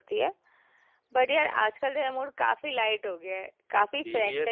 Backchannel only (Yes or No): No